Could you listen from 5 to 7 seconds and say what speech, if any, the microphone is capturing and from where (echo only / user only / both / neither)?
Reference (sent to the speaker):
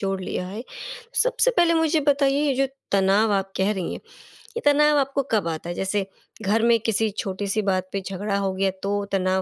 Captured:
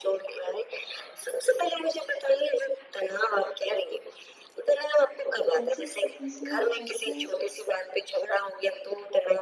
both